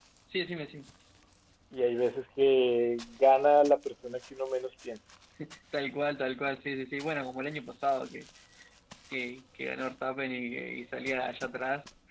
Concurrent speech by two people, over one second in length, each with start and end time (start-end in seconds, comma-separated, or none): none